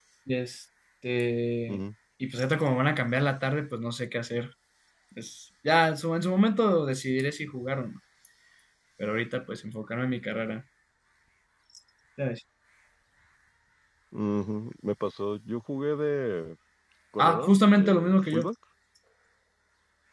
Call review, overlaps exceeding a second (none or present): present